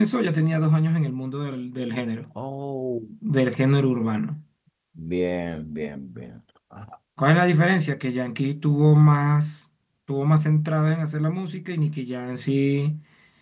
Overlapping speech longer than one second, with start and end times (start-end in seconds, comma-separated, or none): none